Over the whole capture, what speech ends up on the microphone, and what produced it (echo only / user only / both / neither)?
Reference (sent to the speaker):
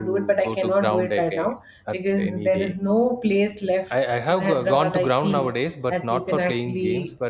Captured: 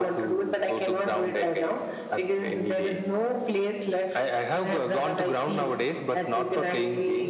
echo only